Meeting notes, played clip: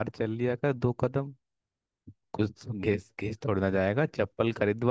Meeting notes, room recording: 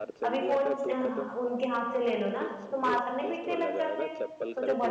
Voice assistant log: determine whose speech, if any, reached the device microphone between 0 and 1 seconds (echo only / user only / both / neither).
both